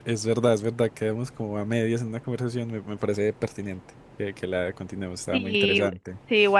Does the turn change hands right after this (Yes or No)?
Yes